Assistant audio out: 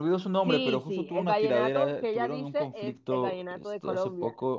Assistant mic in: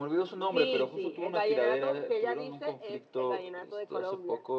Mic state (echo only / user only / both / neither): echo only